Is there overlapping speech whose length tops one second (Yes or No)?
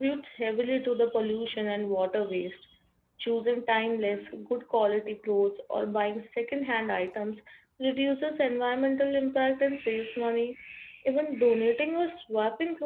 No